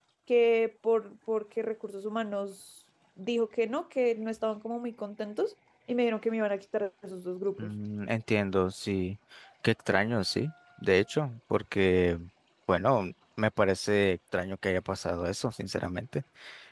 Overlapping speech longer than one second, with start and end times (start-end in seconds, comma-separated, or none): none